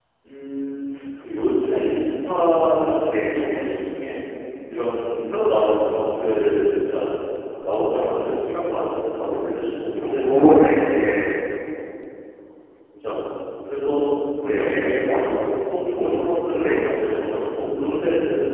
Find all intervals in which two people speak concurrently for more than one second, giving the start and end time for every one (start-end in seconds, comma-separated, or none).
10.0-11.3